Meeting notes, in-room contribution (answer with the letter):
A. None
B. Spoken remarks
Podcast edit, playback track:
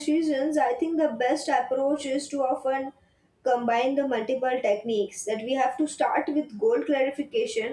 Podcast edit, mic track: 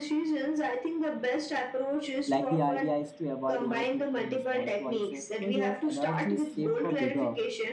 B